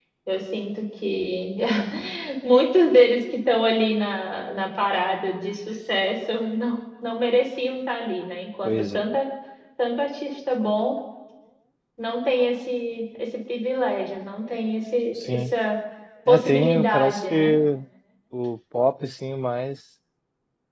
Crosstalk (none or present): present